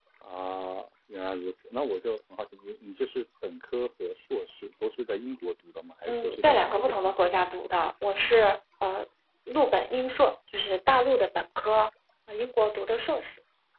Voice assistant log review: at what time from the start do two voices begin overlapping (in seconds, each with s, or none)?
6.1 s